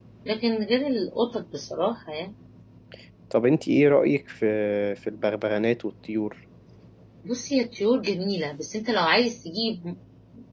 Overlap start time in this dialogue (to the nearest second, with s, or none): none